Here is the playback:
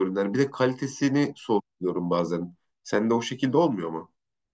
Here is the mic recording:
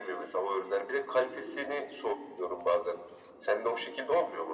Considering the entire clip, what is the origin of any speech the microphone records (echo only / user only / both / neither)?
echo only